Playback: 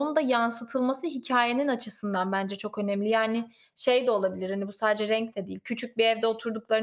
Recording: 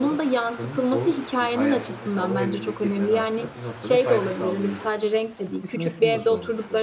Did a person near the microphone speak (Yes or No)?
Yes